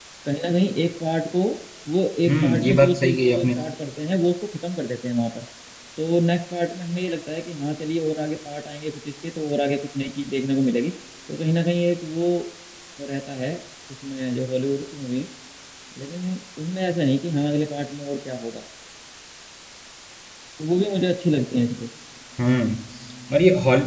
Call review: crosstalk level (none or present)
present